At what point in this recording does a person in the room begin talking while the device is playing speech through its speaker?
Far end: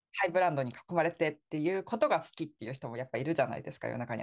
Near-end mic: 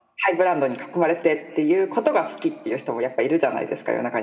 none

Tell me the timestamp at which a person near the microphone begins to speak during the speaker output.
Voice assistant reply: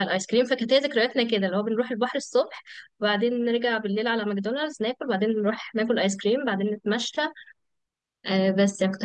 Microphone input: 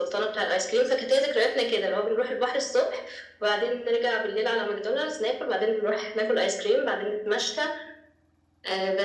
none

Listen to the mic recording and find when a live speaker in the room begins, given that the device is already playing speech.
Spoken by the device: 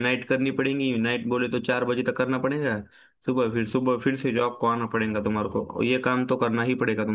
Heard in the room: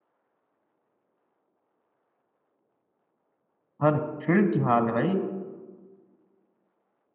3.8 s

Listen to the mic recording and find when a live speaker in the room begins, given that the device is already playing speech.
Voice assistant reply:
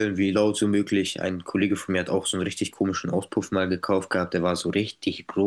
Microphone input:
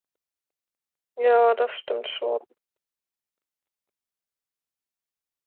1.1 s

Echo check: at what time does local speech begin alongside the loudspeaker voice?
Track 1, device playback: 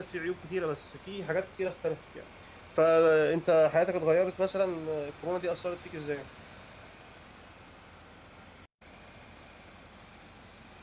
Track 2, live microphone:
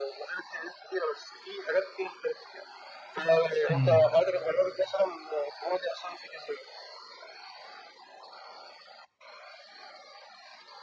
3.7 s

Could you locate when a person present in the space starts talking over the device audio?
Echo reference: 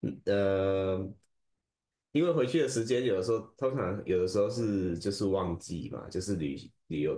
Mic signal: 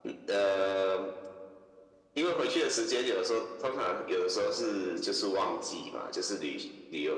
none

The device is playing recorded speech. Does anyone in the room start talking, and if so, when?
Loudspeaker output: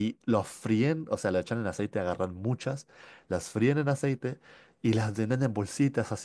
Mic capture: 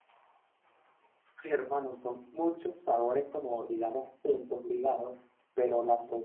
1.4 s

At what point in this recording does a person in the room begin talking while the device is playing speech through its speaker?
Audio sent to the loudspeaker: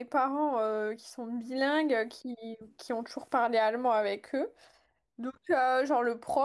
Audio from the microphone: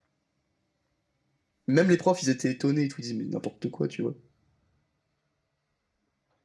1.7 s

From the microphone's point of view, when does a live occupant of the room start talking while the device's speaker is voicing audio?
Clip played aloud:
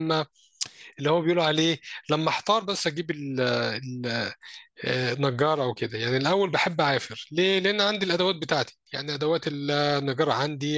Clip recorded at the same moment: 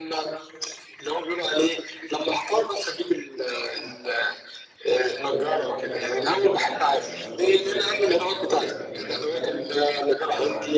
5.0 s

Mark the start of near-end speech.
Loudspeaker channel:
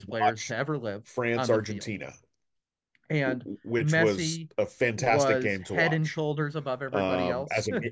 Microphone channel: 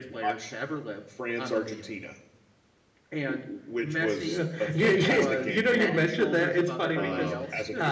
4.2 s

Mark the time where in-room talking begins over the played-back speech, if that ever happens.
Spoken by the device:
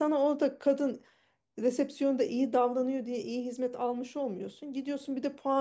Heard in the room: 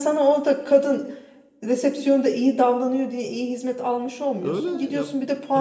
4.4 s

